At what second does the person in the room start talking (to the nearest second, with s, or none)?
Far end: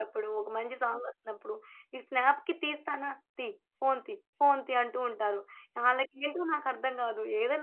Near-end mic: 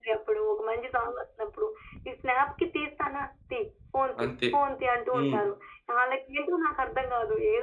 4 s